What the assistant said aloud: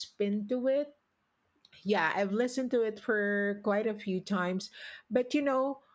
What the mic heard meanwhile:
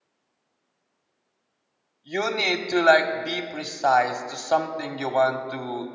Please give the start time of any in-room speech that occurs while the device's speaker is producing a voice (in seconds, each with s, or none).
2.0 s